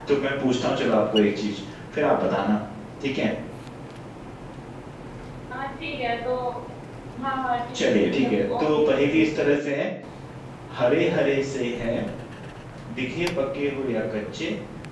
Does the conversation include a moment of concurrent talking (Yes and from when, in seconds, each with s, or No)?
Yes, from 7.7 s